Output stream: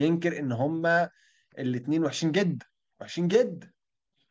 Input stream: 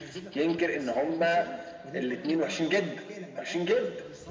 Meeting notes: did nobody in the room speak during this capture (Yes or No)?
No